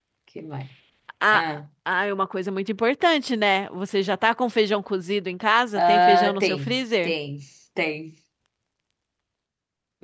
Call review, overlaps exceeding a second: present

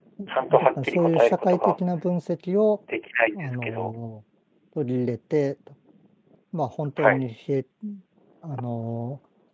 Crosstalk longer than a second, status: present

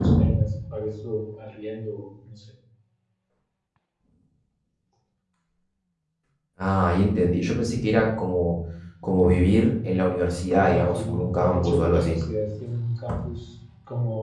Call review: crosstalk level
present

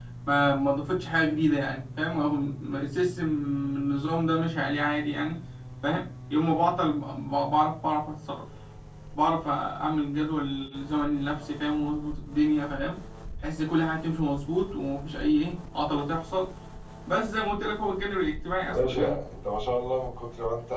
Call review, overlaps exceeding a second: none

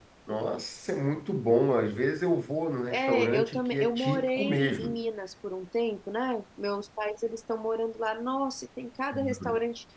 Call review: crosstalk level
present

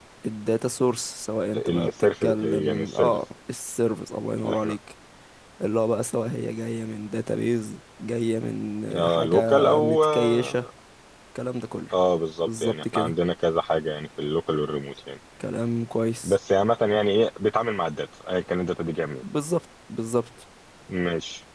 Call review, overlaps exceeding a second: present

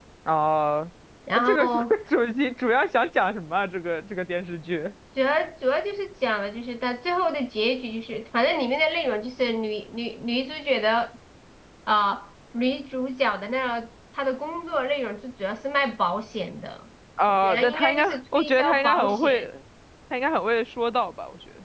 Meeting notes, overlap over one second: present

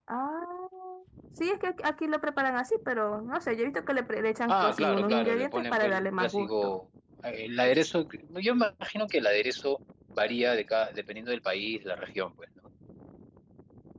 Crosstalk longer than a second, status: present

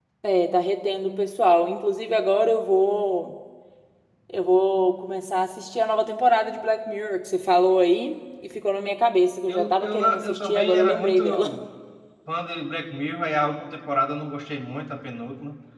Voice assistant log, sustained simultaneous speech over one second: present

